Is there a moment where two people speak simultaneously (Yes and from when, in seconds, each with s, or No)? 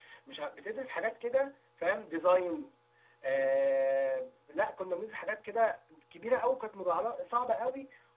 No